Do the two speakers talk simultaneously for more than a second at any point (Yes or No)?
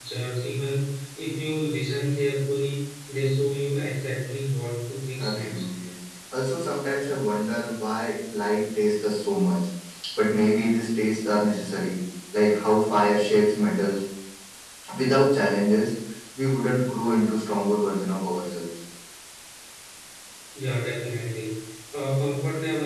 No